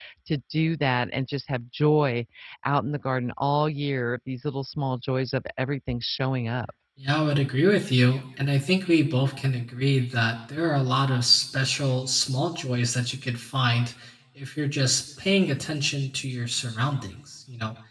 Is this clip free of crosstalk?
Yes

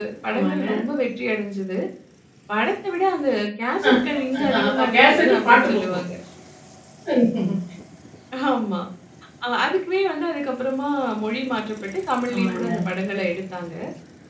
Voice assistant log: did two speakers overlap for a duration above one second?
Yes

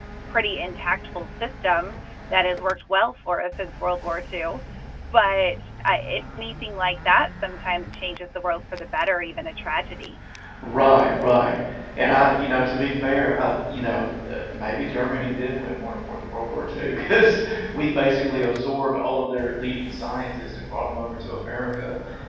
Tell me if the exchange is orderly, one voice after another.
Yes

